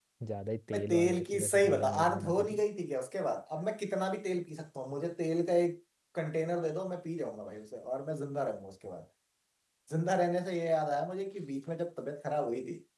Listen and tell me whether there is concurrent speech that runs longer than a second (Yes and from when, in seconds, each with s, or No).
Yes, from 0.7 s